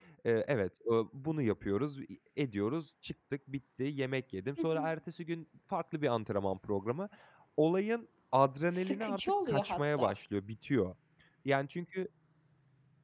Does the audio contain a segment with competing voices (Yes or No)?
Yes